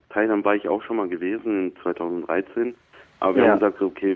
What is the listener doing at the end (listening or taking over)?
listening